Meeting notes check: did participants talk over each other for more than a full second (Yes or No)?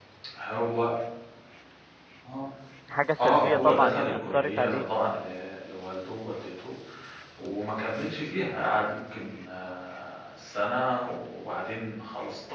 Yes